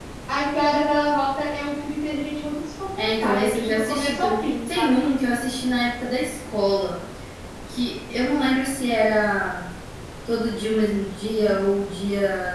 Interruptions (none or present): present